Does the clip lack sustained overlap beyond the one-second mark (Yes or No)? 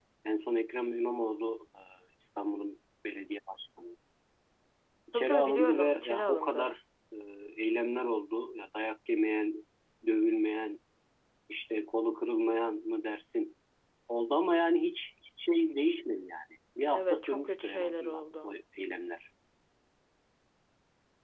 No